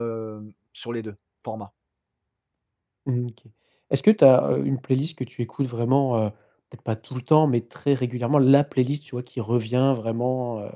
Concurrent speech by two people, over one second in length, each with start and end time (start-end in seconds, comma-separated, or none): none